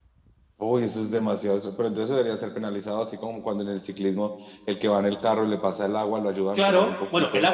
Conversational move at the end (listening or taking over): taking over